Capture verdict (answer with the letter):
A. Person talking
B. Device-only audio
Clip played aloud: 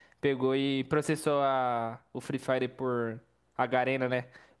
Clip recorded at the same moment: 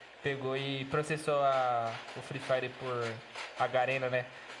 B